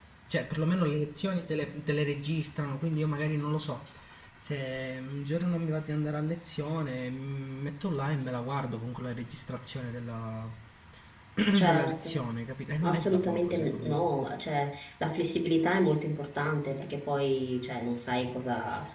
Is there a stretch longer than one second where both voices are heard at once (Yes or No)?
Yes